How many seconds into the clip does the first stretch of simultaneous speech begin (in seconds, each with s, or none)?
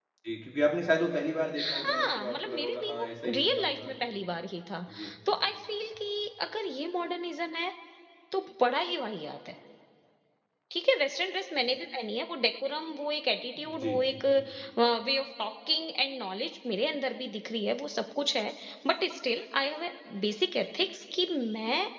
1.7 s